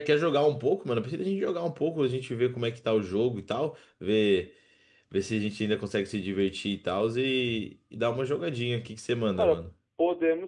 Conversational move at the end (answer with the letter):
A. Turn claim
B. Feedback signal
A